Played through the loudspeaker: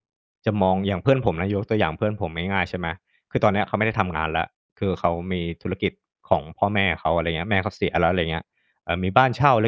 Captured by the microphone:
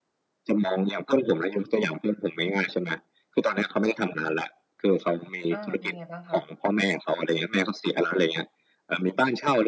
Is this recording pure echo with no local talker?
No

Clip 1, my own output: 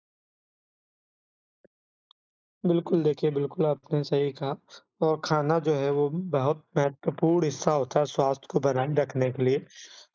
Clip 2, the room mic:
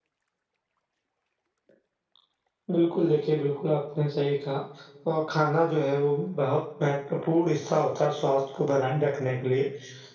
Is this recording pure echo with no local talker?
Yes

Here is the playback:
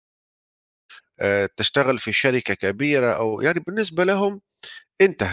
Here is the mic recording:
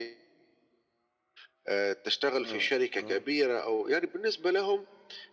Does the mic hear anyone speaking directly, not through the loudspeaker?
Yes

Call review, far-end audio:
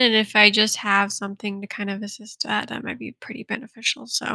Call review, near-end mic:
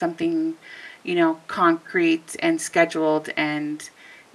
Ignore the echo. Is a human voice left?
Yes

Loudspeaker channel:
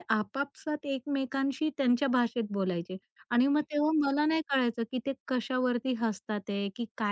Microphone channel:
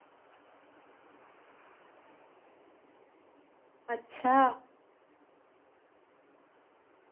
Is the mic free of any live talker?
No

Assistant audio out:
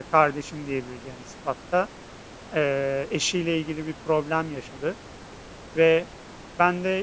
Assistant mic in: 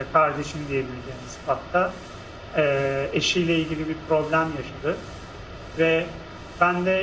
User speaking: No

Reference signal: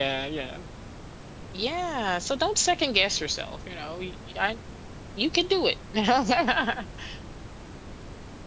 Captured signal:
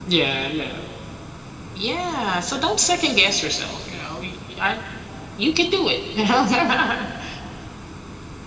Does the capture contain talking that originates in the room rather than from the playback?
No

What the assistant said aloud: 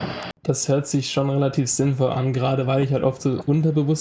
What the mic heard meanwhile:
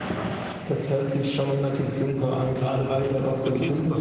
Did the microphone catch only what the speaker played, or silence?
No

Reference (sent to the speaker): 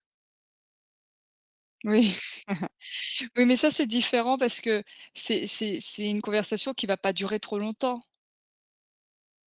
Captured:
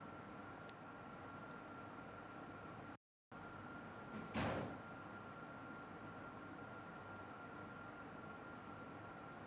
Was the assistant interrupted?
No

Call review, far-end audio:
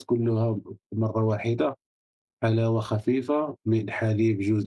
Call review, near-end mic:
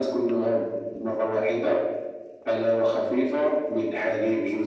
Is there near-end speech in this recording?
No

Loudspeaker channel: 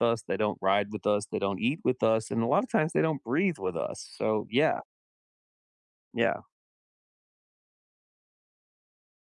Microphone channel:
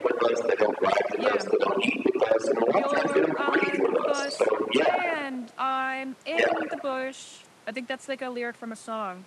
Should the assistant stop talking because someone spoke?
Yes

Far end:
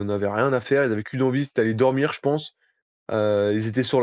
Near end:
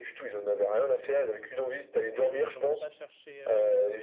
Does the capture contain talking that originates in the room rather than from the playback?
Yes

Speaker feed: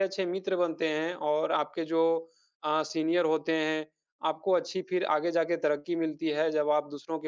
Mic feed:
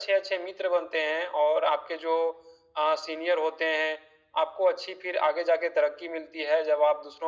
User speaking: No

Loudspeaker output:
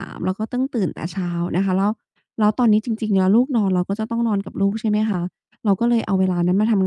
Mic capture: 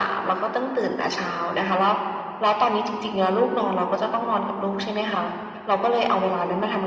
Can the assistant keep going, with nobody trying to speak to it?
Yes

